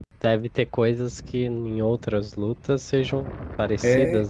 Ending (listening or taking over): taking over